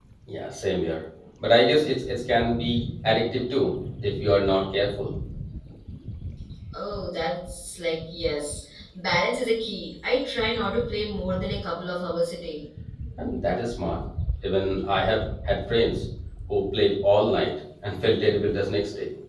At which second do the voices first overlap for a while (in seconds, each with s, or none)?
none